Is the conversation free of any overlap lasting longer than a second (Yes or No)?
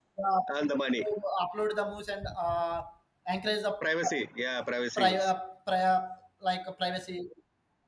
Yes